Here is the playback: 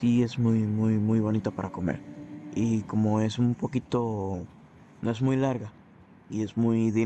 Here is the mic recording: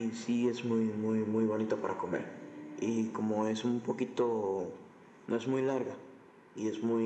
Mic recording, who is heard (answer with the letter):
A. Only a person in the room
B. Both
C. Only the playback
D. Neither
C